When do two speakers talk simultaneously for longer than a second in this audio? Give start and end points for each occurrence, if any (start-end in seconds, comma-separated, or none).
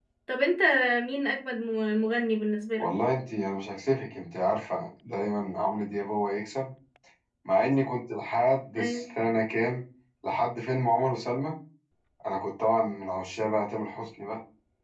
none